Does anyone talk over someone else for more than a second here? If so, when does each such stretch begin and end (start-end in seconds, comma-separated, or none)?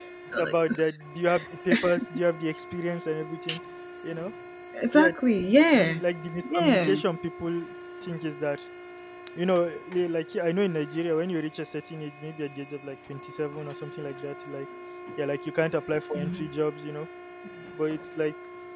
none